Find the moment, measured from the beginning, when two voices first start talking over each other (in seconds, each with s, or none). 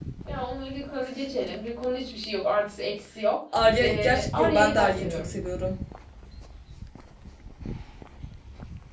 3.8 s